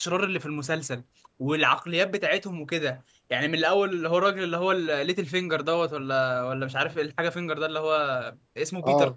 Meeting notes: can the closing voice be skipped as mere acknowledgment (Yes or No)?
Yes